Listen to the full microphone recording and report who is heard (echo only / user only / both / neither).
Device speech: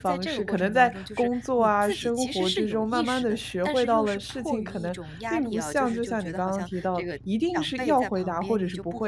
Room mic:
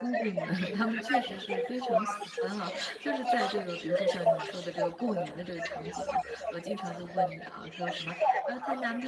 both